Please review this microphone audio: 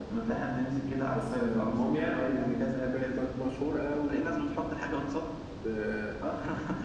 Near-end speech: none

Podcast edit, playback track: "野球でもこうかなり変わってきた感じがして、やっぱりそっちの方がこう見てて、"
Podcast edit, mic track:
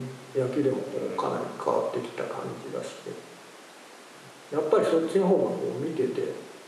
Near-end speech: present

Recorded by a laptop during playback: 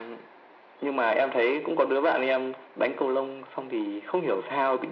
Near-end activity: none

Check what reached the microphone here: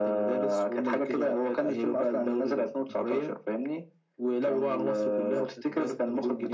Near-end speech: none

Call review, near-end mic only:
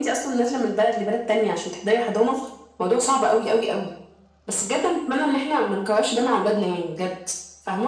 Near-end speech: none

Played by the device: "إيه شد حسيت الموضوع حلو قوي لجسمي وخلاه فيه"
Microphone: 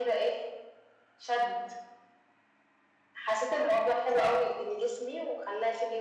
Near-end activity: none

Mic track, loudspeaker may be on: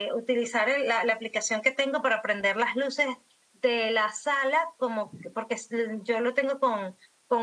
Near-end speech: none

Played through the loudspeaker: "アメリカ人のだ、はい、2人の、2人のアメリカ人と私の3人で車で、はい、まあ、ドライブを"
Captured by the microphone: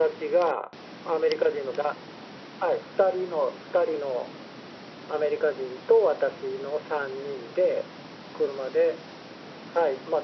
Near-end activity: none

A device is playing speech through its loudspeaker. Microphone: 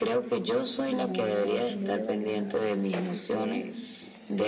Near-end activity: present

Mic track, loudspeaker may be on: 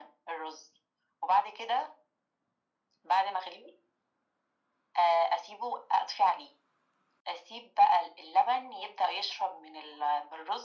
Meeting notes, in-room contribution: none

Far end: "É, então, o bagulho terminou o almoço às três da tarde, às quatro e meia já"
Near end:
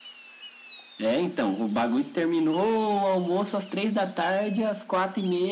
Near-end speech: none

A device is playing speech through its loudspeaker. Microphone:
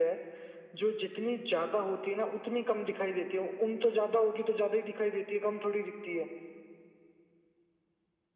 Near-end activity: none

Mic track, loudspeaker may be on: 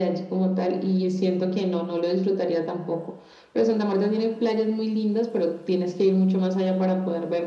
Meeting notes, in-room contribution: none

